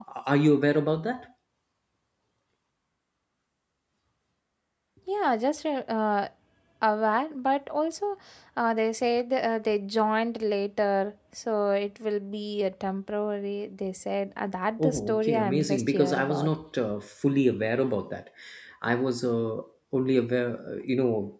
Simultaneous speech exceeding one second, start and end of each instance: 14.8-16.5

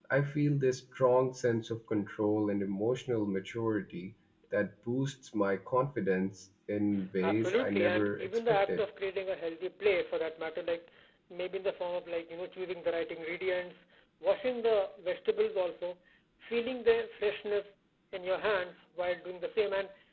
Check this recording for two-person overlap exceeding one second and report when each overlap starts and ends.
7.2-8.8

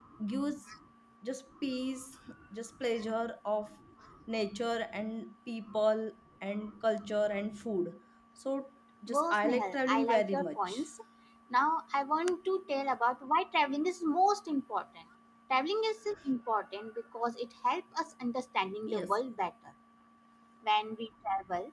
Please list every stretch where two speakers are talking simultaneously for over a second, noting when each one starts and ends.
9.1-10.8

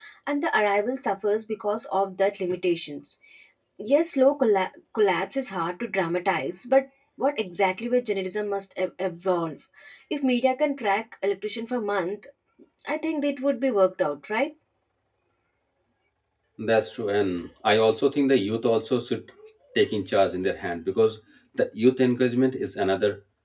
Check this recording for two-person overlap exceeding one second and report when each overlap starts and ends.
none

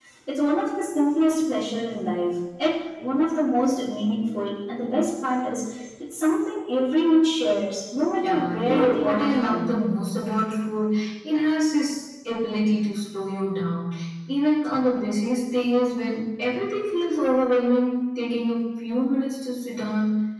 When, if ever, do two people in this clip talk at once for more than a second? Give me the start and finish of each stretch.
8.2-9.6

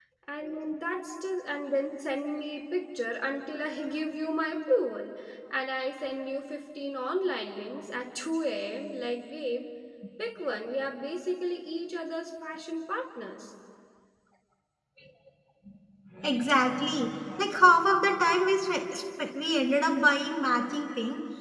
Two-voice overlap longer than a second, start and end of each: none

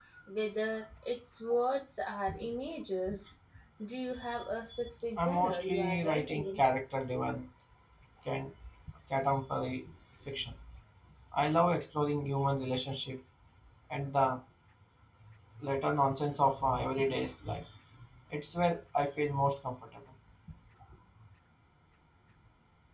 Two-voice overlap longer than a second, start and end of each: 5.2-6.6

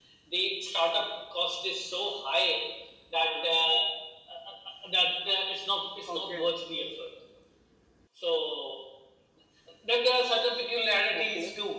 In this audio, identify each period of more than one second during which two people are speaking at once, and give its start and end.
none

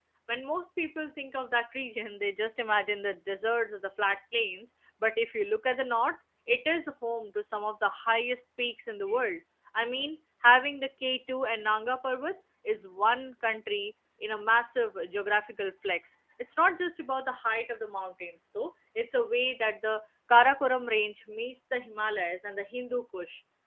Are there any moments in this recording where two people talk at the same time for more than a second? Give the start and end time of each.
none

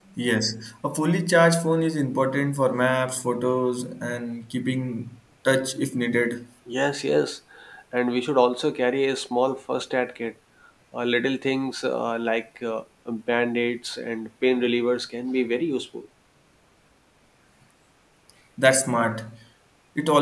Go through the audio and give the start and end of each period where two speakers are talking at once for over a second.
none

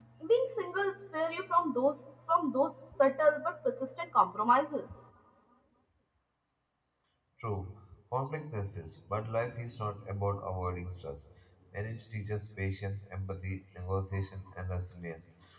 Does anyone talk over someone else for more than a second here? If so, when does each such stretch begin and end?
none

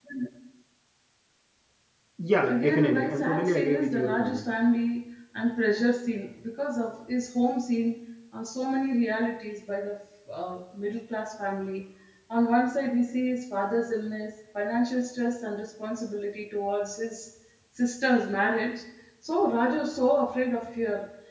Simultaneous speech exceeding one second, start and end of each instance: 2.5-4.4

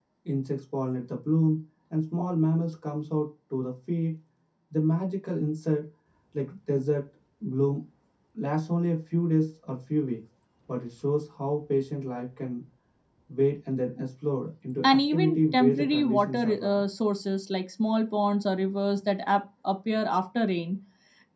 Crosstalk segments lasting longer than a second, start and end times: 14.8-16.8

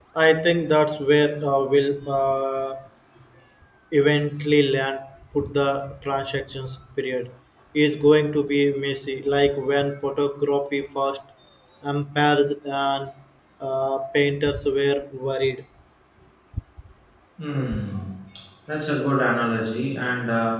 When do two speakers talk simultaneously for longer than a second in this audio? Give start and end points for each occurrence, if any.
none

